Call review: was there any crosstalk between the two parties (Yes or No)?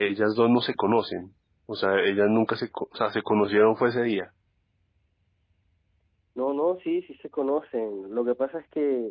No